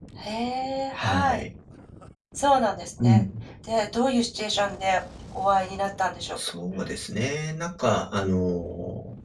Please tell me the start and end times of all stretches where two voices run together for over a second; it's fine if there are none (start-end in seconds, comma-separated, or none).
none